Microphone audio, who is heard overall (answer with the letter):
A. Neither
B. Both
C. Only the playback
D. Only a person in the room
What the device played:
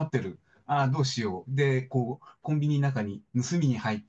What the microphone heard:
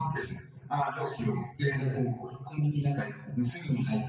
B